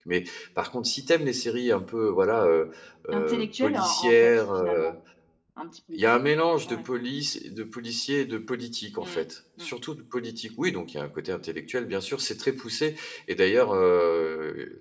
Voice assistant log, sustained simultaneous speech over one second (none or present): present